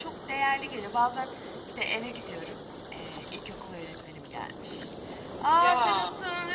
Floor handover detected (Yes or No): No